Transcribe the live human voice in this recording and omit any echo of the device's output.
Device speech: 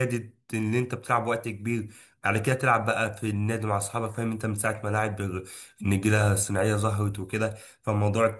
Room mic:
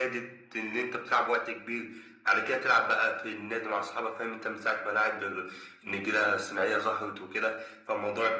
none

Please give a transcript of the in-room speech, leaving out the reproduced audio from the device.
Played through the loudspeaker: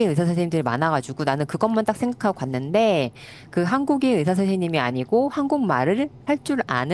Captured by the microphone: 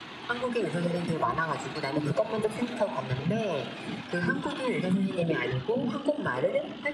none

